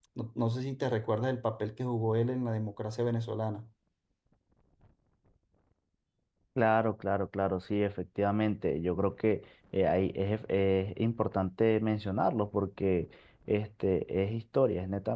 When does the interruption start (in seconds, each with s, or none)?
none